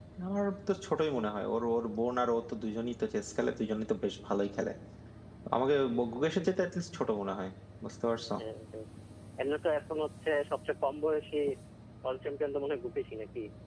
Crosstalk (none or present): none